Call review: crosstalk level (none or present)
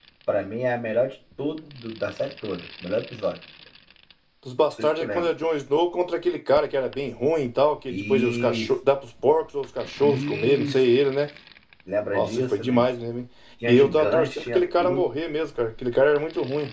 present